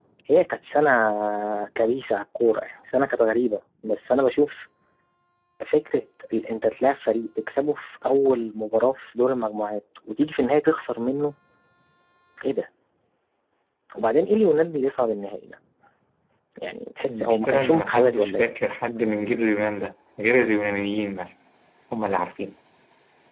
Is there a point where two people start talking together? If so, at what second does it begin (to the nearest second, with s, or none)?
17 s